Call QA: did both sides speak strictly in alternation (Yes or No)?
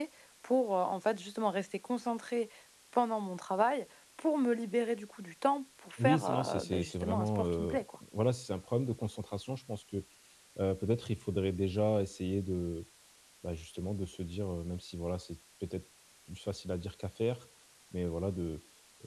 No